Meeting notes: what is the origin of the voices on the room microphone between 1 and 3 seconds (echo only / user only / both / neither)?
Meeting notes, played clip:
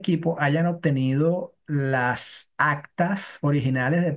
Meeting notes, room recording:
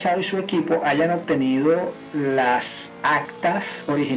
echo only